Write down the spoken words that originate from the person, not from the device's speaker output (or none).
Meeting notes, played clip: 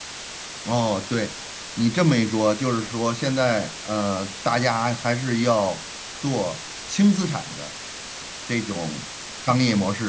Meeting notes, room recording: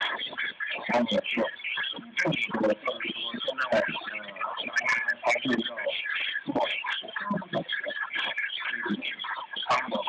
none